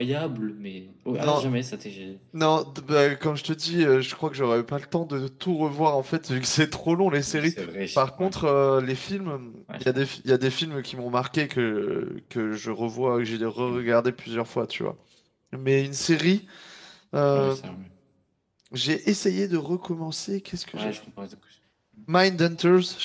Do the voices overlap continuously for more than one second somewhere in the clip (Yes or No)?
No